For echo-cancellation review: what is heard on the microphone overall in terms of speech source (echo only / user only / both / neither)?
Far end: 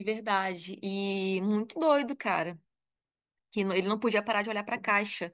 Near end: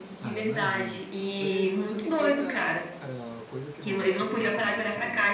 both